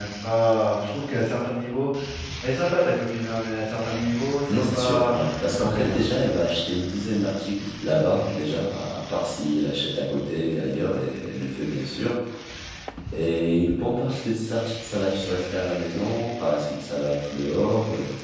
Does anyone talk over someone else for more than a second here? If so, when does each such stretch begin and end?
4.5-6.0

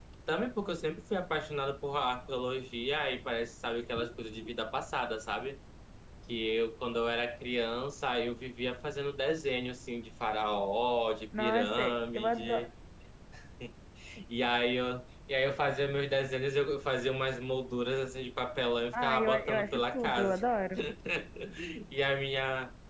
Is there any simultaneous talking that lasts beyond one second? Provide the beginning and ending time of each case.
11.4-12.7, 18.9-20.4

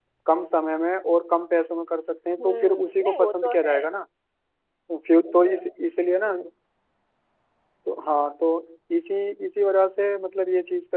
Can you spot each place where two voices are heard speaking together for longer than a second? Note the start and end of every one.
2.4-3.8

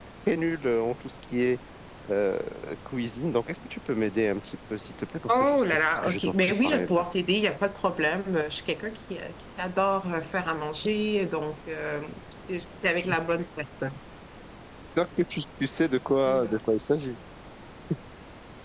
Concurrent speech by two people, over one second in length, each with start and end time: 5.3-7.1

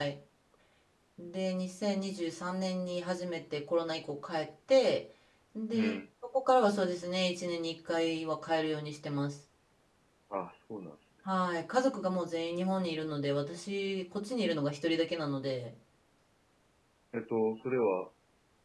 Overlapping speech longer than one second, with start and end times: none

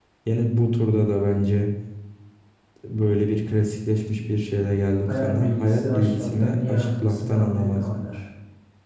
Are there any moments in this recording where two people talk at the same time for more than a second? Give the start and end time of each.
5.1-8.0

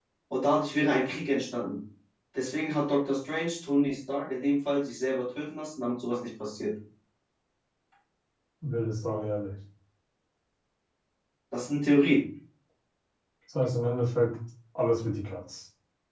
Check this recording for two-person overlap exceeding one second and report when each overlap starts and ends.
none

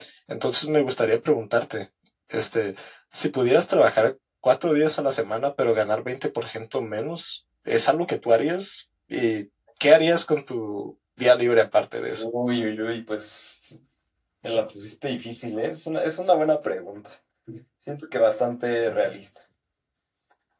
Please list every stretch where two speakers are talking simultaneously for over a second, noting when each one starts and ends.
none

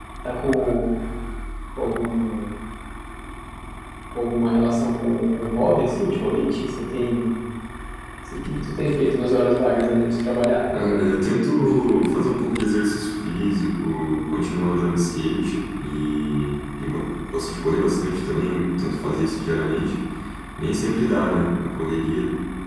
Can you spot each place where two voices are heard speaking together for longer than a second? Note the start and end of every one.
none

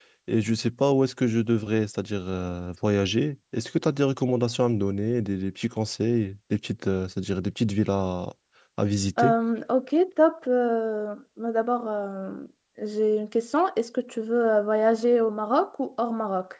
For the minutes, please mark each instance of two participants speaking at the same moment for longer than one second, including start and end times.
none

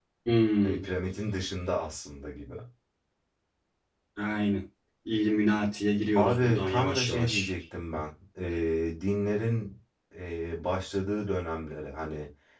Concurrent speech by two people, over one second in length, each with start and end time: 6.2-7.5

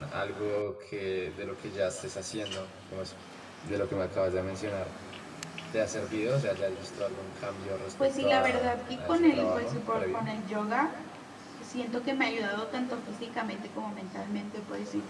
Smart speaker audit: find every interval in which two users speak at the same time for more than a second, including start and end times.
8.0-10.3

